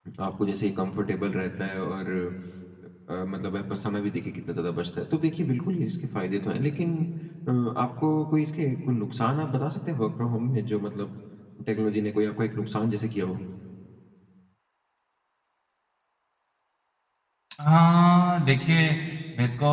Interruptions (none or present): none